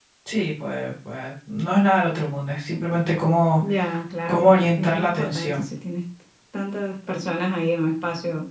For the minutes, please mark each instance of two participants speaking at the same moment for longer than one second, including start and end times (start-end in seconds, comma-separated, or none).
4.3-5.6